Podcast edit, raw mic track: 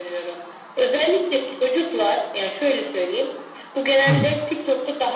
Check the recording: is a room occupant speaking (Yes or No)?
Yes